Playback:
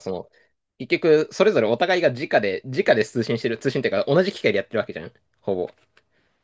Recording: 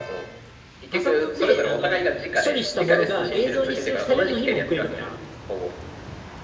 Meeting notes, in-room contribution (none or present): present